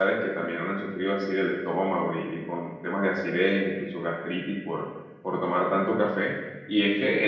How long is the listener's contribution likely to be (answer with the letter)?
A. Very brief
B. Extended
A